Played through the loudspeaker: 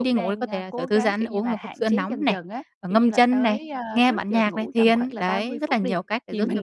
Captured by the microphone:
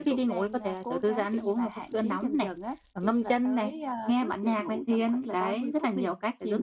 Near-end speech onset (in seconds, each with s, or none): none